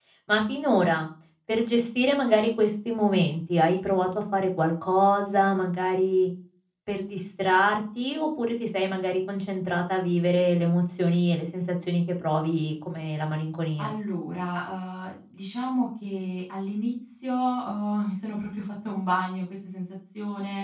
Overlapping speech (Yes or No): No